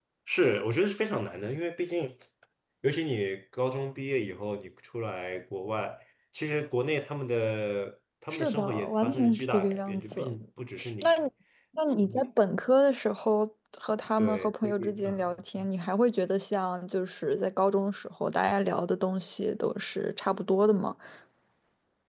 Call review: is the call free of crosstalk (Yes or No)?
No